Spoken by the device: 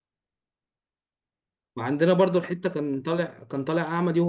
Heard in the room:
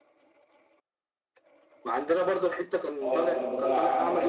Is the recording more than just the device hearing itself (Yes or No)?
Yes